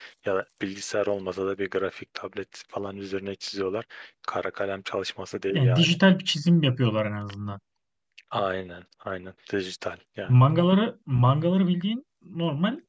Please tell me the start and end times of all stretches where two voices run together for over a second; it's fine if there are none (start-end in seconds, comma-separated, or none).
none